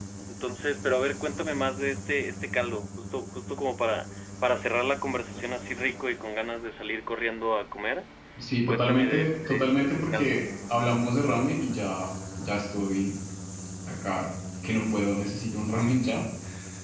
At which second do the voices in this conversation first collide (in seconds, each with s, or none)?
8.7 s